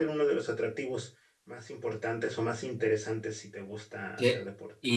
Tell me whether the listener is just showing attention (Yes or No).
No